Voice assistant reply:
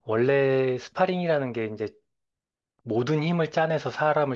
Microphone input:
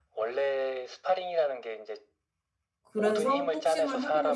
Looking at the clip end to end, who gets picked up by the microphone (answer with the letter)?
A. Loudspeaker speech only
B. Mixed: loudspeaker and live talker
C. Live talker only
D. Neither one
B